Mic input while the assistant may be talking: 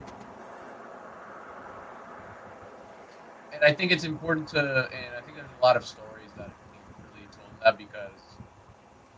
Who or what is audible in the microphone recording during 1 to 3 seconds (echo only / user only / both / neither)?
neither